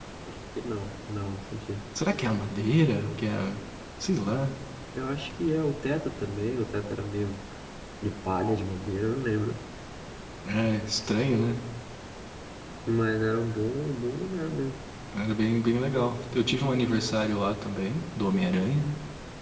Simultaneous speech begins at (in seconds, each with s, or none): none